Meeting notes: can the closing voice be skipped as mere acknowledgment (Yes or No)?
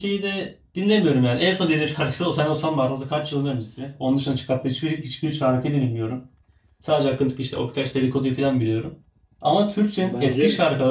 Yes